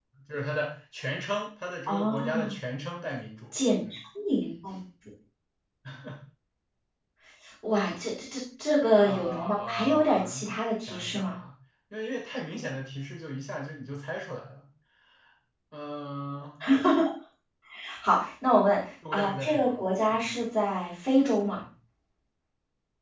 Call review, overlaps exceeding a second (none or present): present